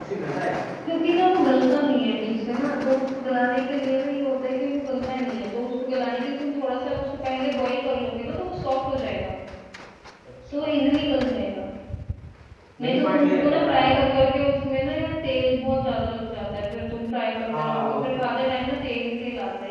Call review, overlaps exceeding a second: present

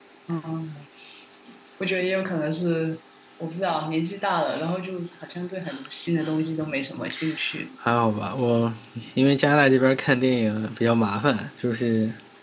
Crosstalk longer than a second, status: none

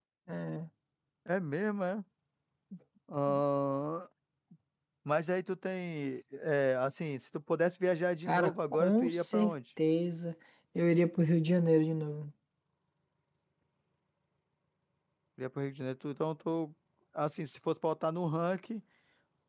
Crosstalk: present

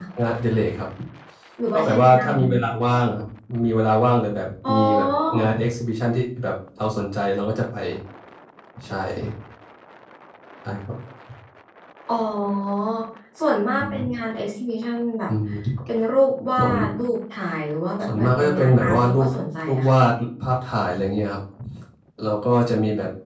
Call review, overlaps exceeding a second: present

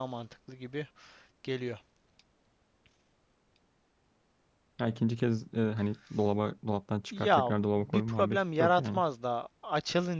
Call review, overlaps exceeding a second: present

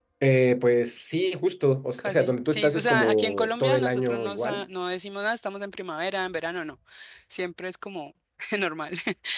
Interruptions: present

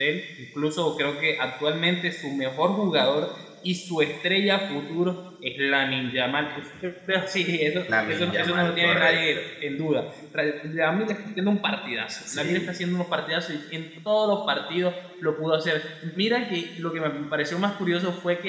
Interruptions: present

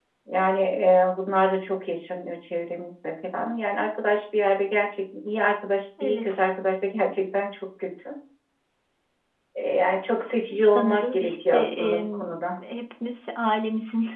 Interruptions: present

